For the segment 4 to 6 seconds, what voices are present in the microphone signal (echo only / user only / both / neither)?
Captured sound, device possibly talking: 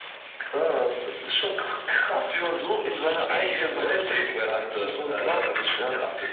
echo only